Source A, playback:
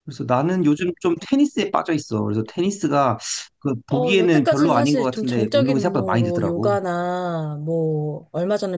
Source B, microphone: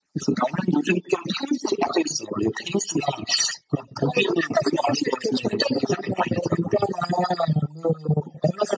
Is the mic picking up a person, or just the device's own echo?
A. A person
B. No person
B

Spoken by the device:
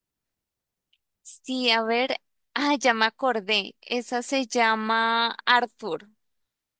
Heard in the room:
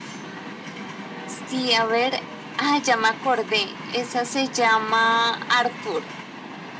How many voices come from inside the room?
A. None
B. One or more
A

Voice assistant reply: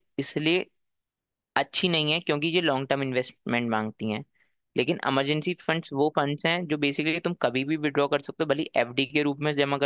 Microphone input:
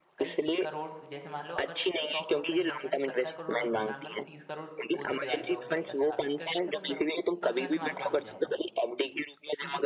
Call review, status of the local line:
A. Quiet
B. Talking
B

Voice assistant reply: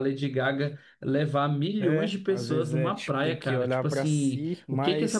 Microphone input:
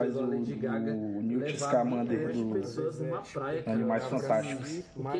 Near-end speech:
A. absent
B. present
B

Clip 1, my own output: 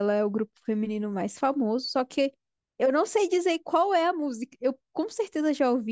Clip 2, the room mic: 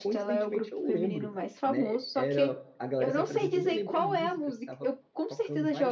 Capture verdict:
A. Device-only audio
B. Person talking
B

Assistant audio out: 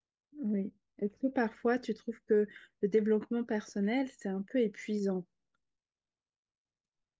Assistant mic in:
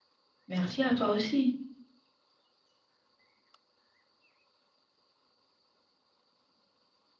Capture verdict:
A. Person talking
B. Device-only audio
A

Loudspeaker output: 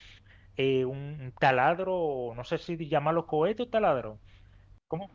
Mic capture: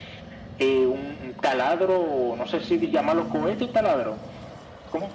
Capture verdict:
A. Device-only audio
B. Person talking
A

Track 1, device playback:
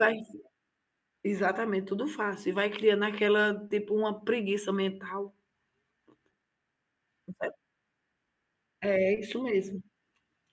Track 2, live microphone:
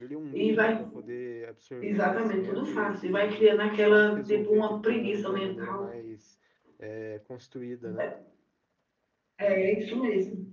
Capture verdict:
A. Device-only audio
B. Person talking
B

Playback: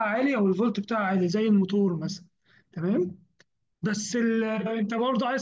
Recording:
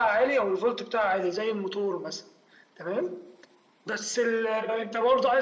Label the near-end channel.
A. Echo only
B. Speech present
A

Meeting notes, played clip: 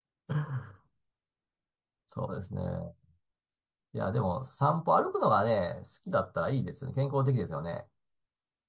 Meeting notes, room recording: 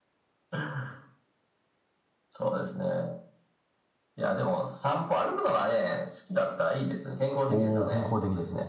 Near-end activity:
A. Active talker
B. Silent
A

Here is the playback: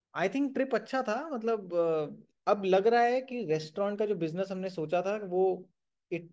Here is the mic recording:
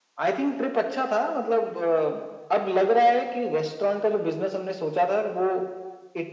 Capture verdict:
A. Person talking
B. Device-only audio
B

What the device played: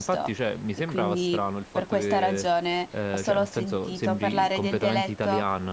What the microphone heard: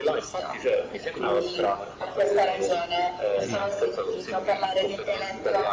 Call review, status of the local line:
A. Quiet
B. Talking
B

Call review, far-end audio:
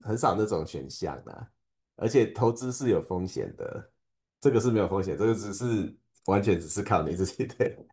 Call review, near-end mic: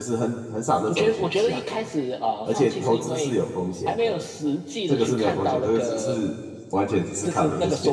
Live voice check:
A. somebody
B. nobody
A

